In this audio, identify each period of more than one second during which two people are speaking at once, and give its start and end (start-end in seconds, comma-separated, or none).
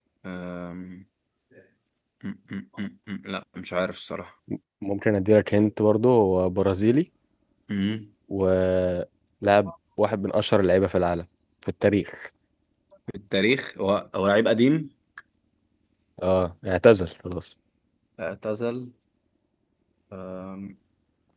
none